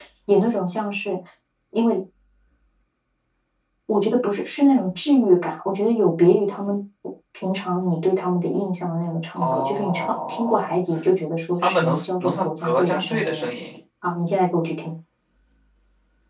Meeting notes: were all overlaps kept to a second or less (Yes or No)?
No